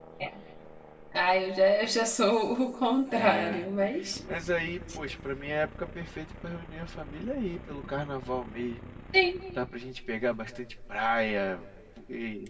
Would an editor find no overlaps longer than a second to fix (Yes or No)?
Yes